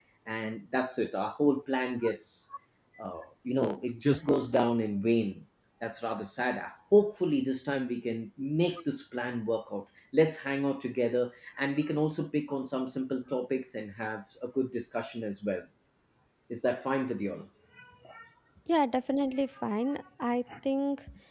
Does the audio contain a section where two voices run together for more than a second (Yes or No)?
No